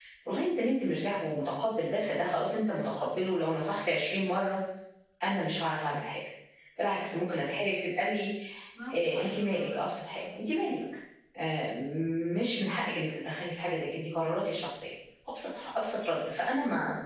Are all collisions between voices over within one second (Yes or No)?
No